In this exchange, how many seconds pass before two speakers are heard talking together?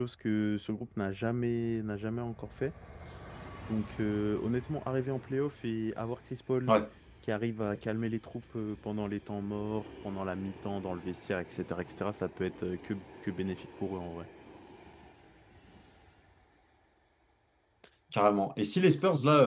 none

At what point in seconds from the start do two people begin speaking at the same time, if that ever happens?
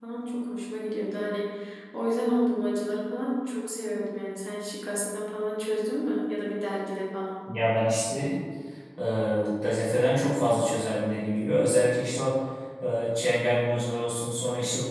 none

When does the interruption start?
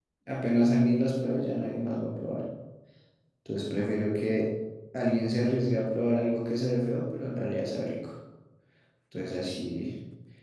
none

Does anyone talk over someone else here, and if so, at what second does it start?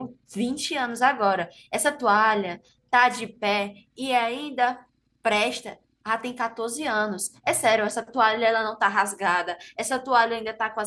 none

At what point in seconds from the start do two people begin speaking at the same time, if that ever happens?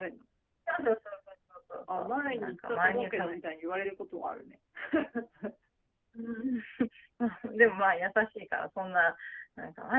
1.9 s

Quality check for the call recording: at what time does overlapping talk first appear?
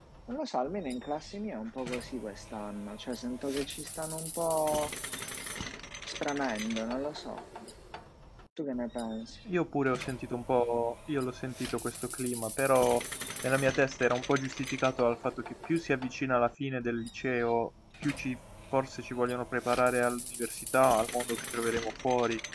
none

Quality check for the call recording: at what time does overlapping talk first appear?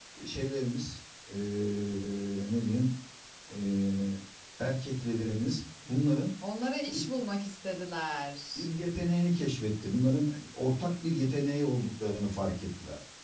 none

